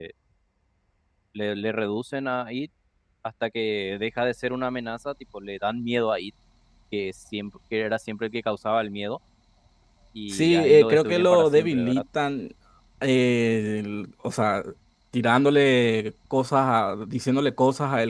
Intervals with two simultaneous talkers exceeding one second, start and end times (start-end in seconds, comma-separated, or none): 10.3-12.0